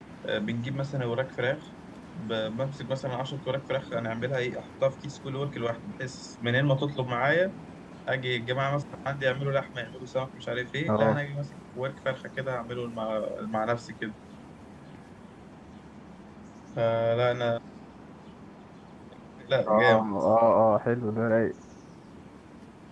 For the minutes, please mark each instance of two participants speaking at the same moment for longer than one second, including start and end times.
none

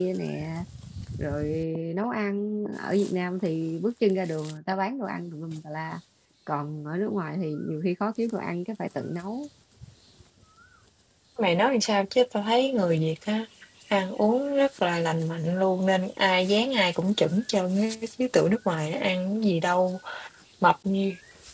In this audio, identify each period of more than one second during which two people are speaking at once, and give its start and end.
none

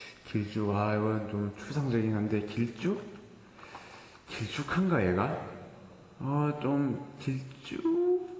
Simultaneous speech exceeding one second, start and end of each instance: none

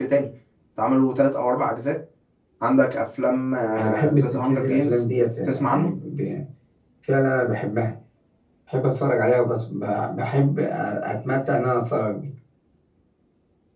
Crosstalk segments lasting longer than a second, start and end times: 3.8-5.0

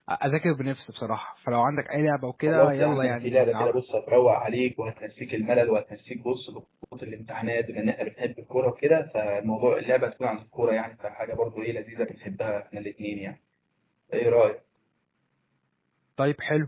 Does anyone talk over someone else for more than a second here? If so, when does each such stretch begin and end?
2.5-3.8

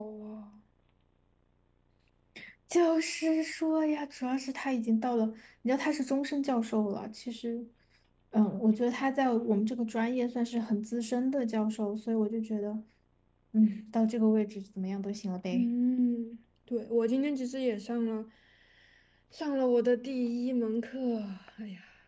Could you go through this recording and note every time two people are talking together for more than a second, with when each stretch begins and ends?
none

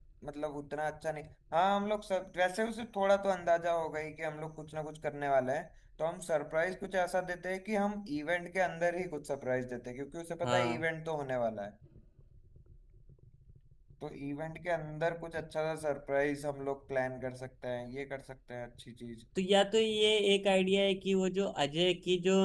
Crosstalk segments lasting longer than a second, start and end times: none

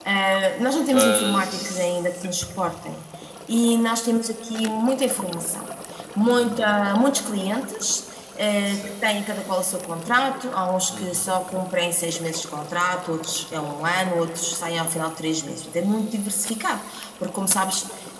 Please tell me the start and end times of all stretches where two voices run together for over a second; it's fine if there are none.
0.9-2.5

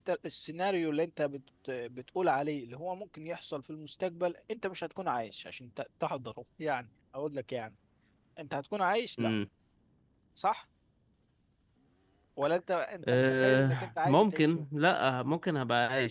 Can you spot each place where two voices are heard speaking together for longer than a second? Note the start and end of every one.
13.1-14.6

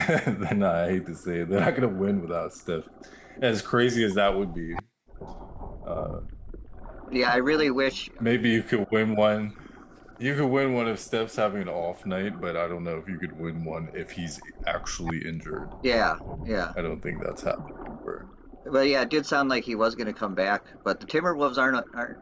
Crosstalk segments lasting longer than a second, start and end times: none

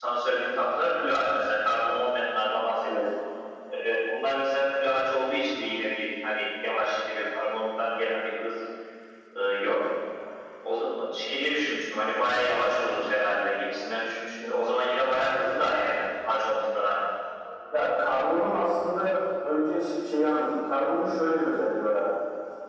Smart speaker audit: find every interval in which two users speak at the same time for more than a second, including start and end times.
none

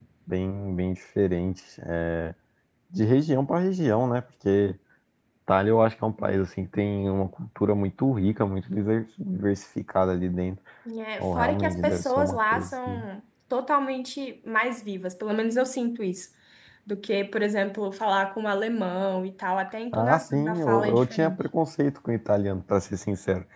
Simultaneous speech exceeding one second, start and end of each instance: 11.2-13.1, 19.9-21.4

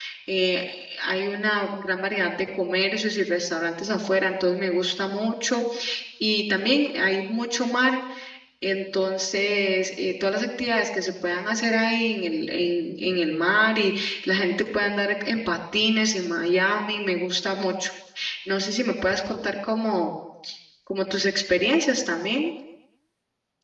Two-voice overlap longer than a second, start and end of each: none

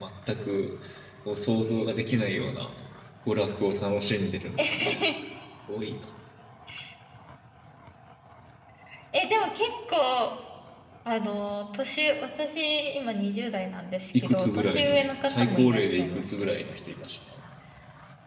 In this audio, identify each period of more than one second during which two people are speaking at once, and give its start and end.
14.2-16.5

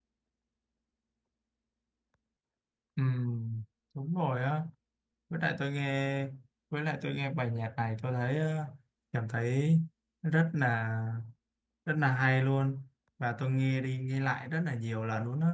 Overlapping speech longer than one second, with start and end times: none

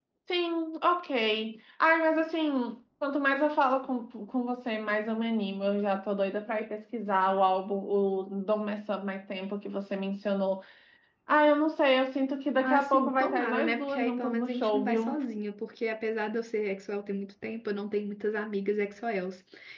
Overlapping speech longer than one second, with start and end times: 12.6-15.2

